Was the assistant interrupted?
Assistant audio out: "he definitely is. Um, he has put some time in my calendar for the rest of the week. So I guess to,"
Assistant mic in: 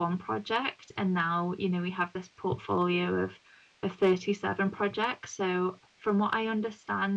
Yes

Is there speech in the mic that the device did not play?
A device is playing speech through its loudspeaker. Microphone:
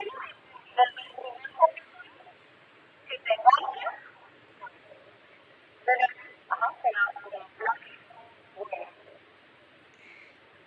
No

